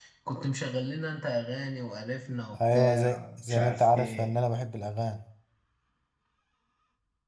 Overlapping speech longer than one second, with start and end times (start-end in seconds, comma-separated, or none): 2.7-4.4